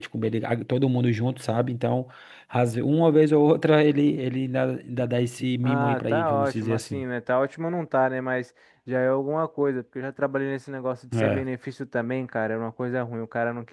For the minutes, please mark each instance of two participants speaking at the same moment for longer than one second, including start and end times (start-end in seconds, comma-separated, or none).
5.6-7.0